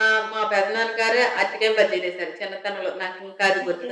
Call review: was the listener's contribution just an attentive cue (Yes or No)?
No